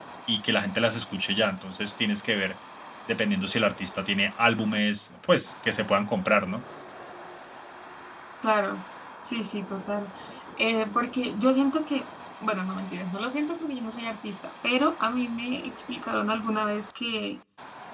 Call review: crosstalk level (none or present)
none